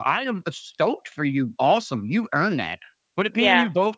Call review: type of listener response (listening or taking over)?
listening